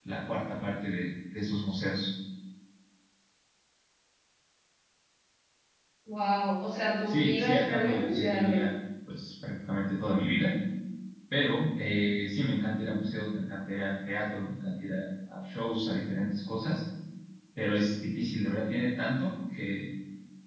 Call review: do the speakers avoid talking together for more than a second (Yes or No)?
No